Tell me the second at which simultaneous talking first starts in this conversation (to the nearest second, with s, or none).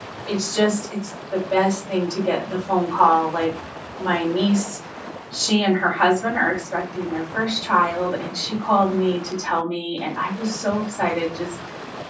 none